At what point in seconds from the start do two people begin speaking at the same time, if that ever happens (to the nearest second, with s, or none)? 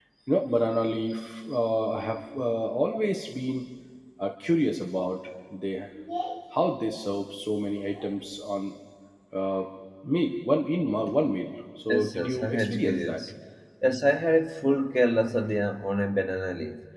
12 s